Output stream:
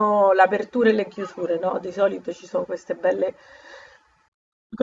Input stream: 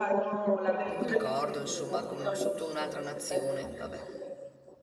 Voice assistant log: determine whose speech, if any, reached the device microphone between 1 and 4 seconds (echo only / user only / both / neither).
both